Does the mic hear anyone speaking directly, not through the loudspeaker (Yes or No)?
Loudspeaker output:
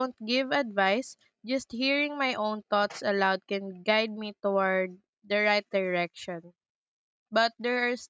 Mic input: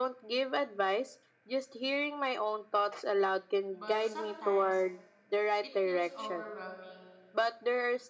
Yes